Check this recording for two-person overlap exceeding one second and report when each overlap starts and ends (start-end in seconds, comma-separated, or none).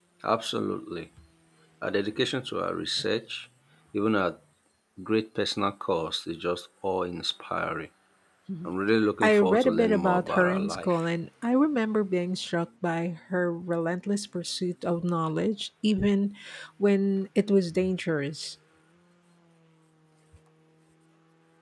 9.2-11.1